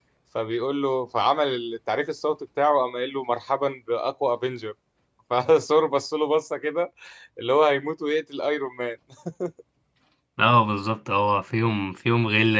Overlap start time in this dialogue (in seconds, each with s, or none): none